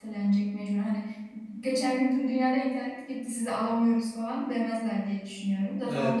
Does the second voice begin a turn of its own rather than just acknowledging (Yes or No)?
Yes